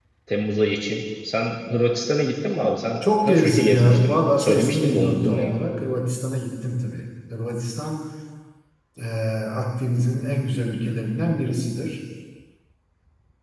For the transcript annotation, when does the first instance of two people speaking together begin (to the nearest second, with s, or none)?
3 s